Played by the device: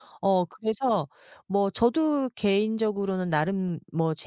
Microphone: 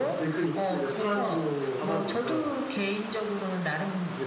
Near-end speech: present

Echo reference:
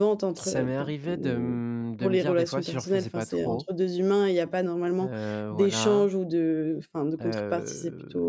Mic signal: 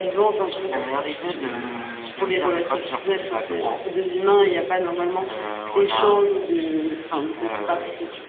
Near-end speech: none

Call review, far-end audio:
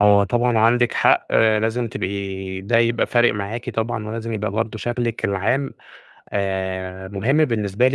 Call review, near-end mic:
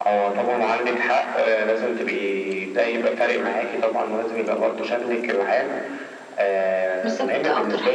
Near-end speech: present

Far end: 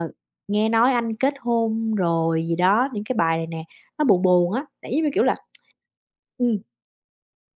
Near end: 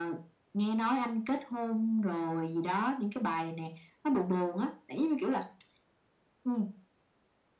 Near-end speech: none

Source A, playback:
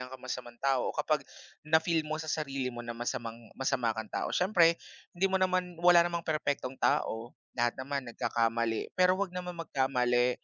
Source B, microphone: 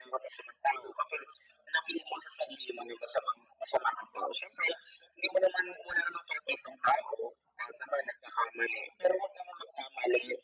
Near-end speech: none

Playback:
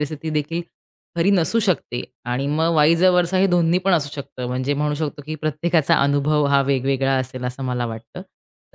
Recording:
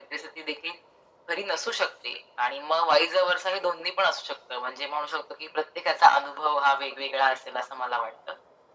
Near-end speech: none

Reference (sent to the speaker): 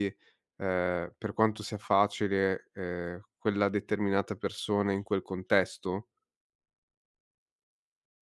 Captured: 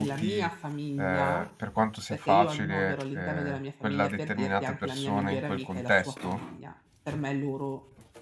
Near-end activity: present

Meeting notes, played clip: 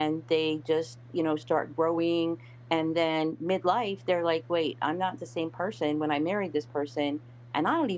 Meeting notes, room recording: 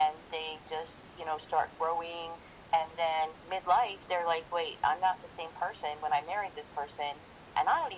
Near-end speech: none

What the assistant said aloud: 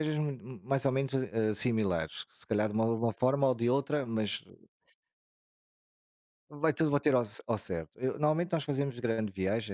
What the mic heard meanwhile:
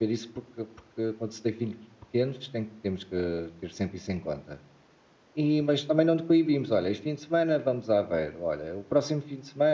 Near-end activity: present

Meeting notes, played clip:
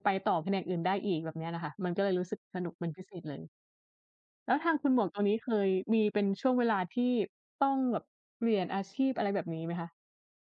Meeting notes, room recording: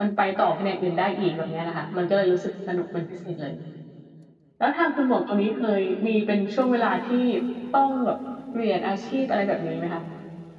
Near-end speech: none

